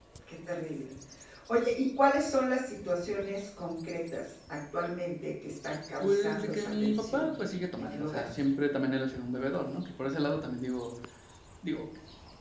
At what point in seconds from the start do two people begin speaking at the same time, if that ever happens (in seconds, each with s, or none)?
6.0 s